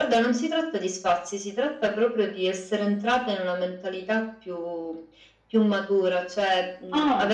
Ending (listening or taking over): listening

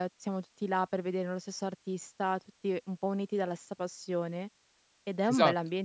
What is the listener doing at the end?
listening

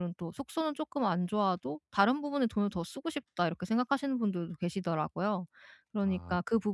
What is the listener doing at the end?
listening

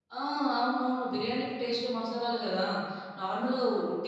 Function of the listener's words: listening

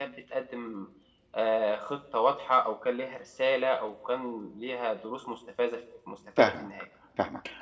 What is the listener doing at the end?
taking over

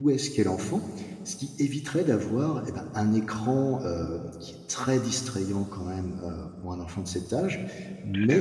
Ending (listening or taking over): listening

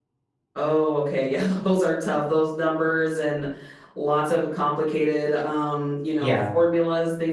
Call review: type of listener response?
listening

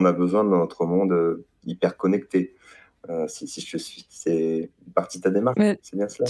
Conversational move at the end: taking over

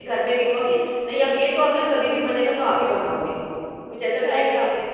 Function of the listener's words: taking over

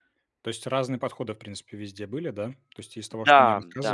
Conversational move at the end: listening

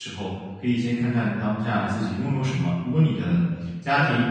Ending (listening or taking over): listening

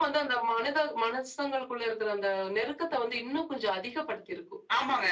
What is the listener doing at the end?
taking over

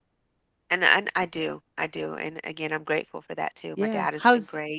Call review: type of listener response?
taking over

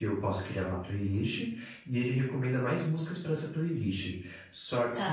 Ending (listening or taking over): listening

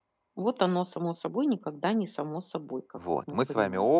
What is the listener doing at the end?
taking over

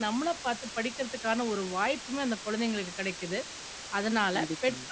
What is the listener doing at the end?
listening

